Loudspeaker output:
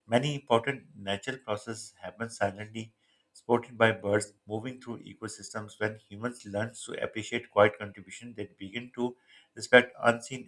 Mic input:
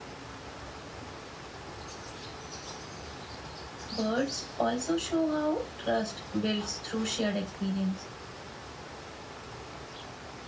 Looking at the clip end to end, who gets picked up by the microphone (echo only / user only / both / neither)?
user only